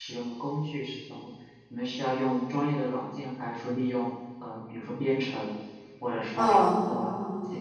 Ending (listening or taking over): taking over